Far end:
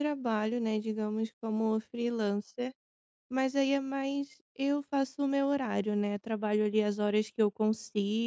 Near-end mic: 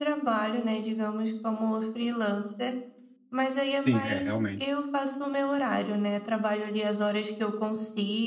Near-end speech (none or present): present